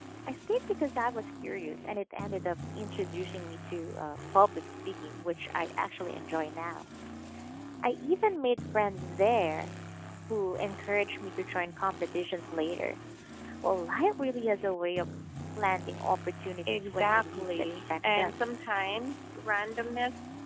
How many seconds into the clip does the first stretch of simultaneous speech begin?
16.6 s

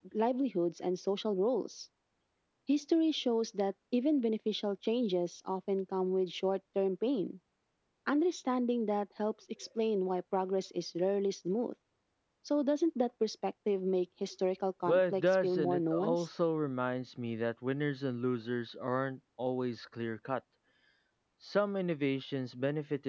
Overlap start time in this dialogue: 14.9 s

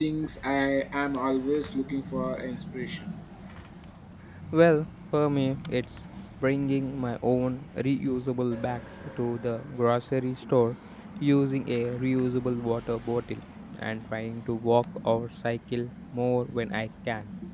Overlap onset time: none

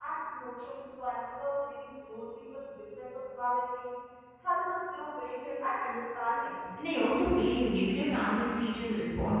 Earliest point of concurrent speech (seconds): none

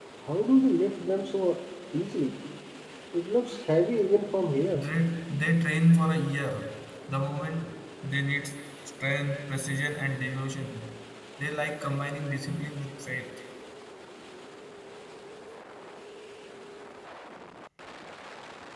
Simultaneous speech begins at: none

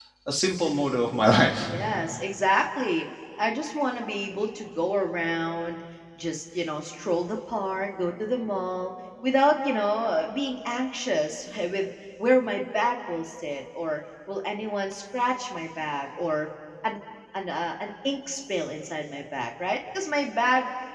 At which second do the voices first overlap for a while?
none

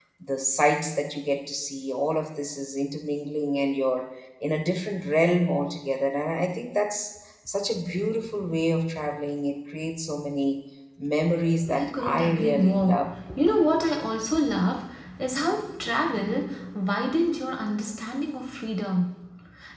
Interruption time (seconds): 11.7 s

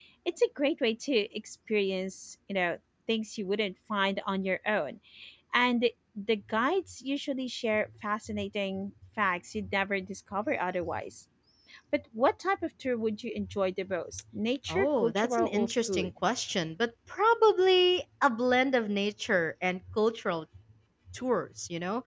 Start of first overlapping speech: 14.7 s

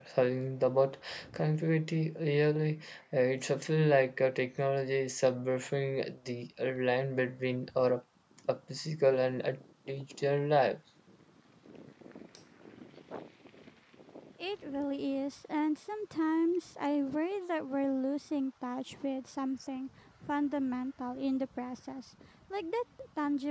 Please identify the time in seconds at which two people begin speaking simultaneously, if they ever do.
none

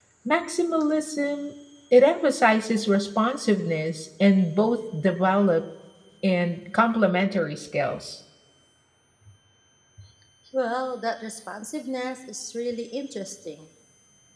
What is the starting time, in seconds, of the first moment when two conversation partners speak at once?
none

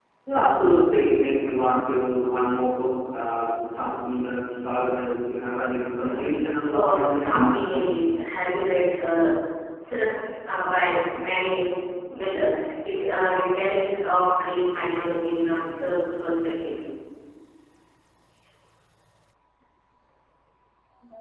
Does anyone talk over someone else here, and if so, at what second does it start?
6.0 s

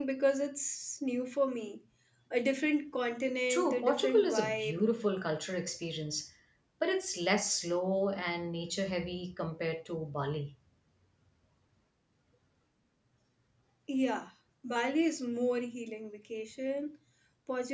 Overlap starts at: 3.5 s

